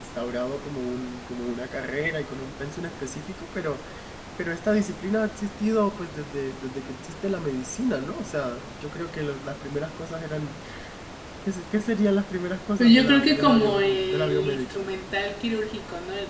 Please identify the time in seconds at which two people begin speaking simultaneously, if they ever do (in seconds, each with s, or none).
12.8 s